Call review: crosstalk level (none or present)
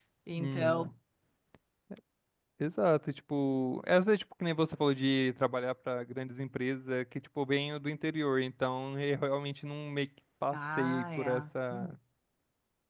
present